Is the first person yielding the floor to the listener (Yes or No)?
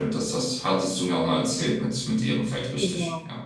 Yes